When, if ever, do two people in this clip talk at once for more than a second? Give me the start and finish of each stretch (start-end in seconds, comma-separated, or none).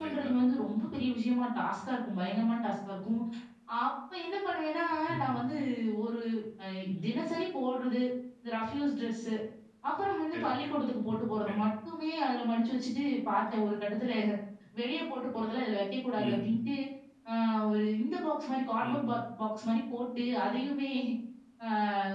none